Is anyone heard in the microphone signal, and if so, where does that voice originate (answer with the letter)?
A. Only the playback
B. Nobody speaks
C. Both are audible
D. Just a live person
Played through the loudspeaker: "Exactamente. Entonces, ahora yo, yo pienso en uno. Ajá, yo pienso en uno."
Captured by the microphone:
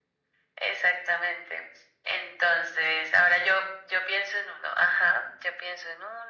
A